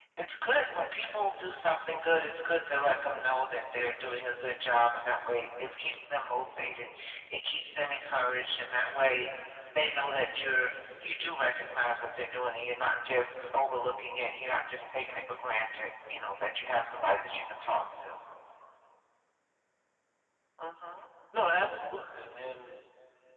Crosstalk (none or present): none